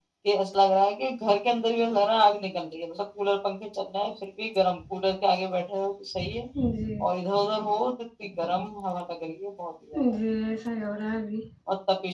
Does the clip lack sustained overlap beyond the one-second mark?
Yes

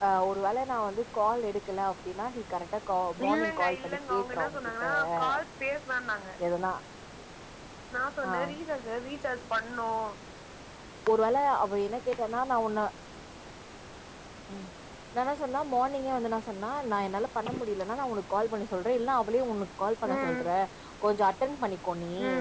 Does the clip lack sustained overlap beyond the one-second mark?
No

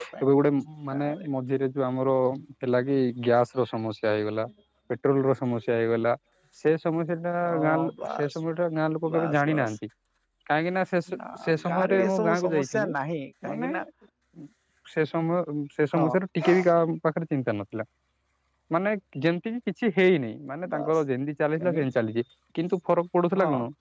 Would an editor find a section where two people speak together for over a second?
Yes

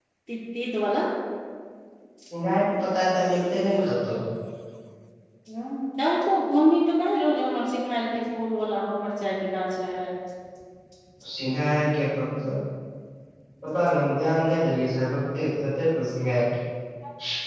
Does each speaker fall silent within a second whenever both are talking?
Yes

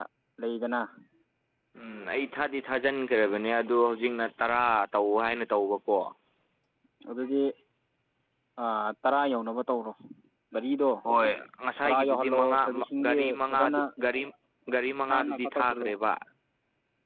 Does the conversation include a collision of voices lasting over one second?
Yes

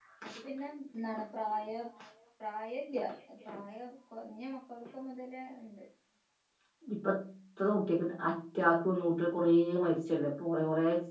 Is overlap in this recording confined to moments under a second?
Yes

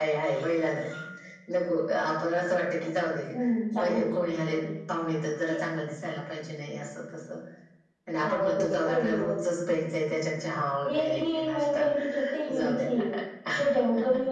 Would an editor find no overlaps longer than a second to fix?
No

